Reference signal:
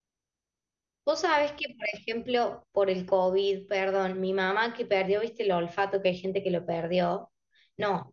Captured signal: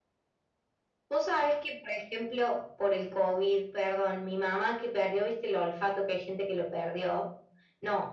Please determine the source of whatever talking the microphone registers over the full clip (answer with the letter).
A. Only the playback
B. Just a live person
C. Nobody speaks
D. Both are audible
A